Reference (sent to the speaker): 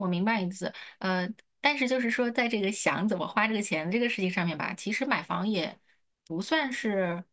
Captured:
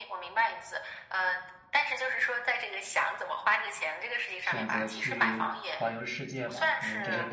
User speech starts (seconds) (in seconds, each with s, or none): 4.4 s